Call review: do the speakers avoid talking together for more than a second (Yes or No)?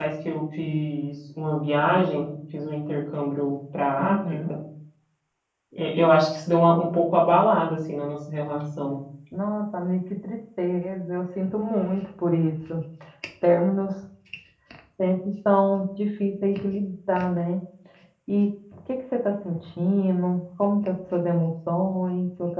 Yes